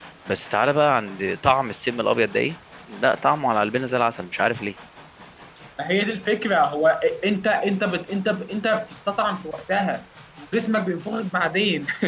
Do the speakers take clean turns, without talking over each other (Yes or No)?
Yes